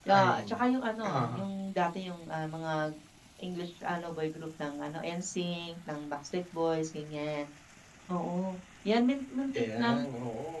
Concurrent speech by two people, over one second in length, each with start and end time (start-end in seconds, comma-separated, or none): none